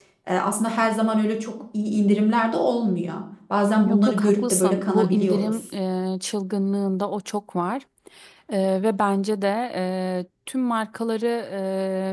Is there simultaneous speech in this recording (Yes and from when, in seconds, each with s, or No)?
Yes, from 3.9 s